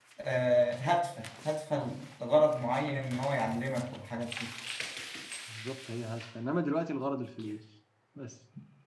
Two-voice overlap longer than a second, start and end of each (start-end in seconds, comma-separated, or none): none